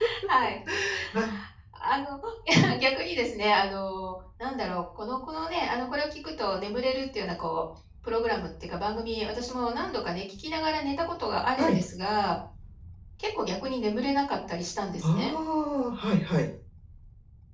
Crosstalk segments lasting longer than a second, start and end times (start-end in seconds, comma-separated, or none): none